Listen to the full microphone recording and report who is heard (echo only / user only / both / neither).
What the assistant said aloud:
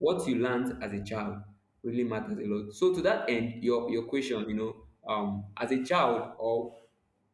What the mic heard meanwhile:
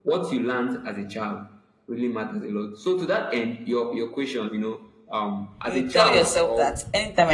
both